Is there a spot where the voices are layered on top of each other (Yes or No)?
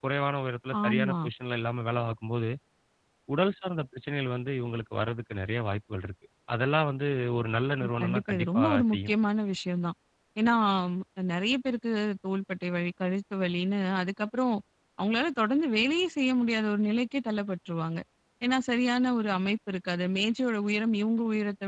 Yes